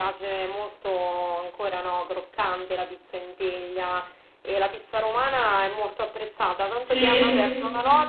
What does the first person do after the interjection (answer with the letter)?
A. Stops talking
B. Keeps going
B